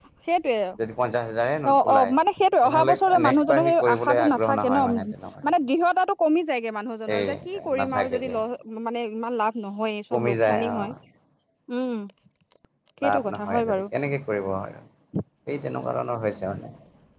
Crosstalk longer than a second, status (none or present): present